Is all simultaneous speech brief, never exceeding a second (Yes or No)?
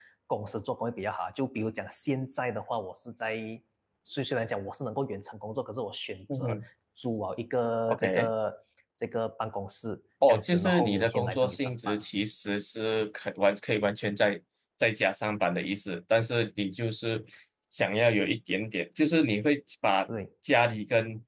No